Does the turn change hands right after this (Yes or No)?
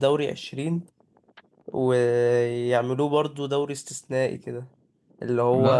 No